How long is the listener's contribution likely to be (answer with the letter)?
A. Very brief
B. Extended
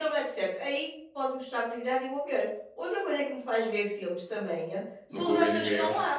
B